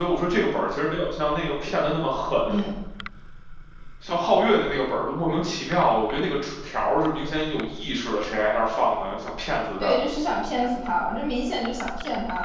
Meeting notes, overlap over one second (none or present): none